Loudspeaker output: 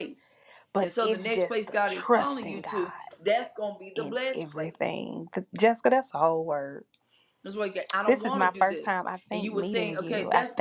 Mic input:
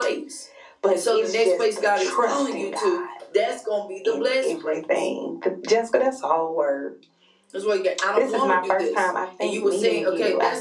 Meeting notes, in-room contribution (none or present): none